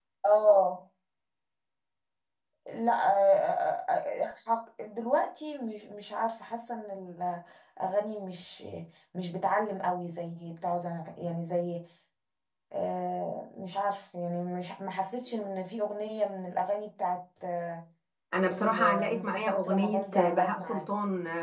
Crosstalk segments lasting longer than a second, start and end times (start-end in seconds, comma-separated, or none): 18.5-20.9